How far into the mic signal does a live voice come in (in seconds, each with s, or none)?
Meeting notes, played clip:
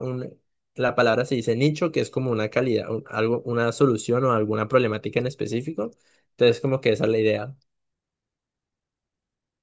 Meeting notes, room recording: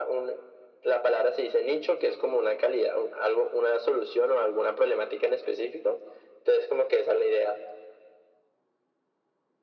none